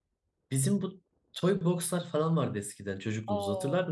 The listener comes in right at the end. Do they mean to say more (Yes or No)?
Yes